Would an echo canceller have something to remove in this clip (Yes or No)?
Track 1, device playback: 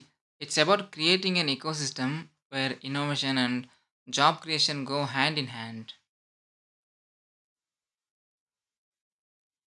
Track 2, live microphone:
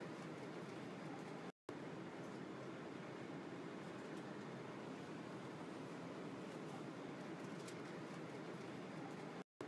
No